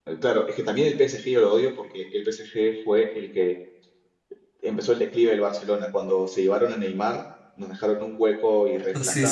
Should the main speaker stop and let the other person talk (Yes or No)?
No